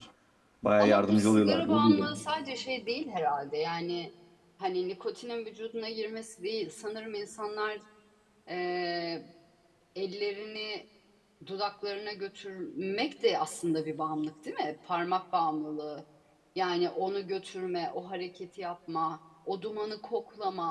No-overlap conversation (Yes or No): No